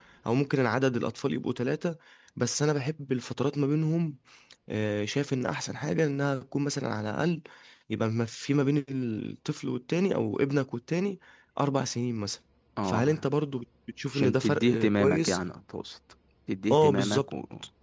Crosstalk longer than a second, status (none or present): present